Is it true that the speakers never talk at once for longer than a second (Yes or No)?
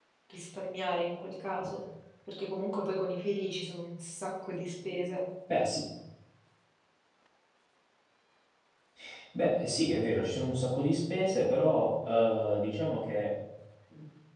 Yes